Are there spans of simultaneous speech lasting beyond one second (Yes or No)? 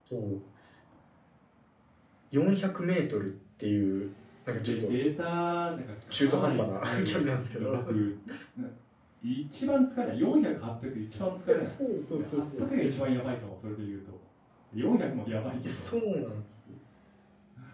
Yes